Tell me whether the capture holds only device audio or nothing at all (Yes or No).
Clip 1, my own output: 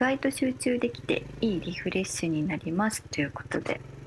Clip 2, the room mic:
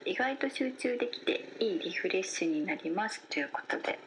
Yes